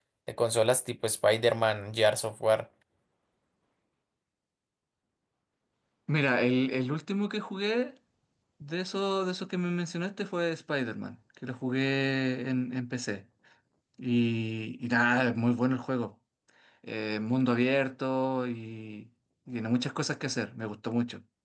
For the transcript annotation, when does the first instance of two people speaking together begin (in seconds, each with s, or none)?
none